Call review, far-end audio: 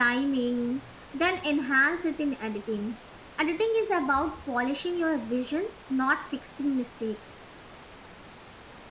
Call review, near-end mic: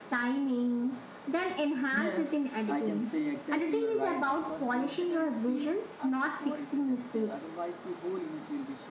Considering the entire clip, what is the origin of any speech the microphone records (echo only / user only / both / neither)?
both